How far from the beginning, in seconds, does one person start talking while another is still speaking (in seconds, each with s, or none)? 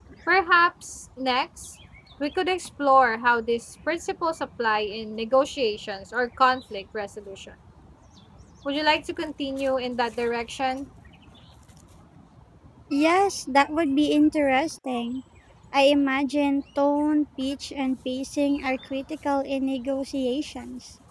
none